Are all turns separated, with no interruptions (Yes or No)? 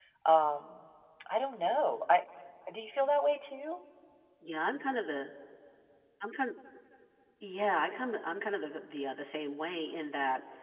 Yes